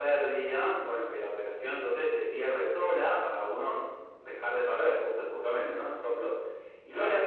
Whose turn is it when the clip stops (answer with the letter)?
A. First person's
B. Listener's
A